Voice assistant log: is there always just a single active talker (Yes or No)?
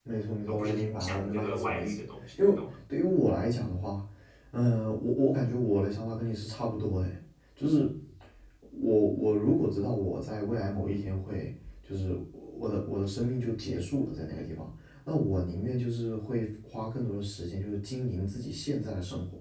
No